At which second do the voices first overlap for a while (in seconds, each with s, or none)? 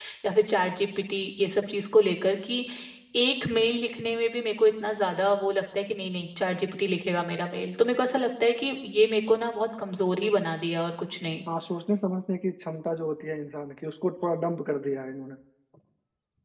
none